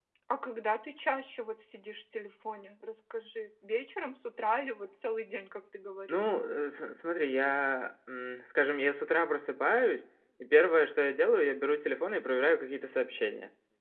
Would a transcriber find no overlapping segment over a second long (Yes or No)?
Yes